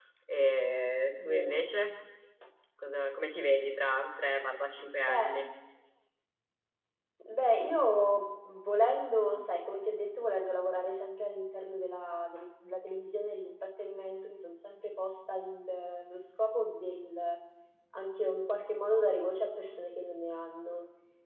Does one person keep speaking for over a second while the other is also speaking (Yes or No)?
No